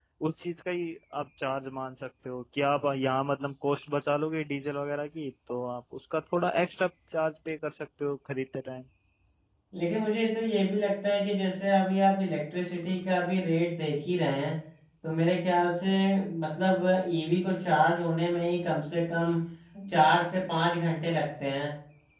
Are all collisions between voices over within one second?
Yes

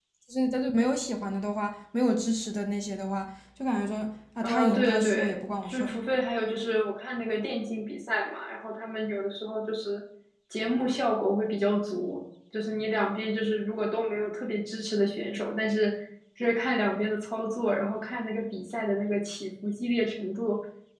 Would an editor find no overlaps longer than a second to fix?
No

